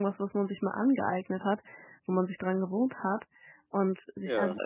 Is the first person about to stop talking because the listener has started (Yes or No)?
No